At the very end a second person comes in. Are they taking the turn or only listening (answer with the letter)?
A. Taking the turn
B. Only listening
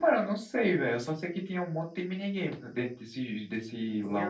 A